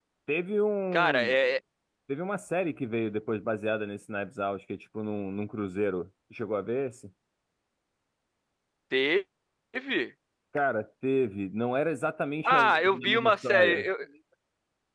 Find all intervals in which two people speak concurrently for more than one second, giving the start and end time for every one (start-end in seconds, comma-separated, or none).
12.4-13.9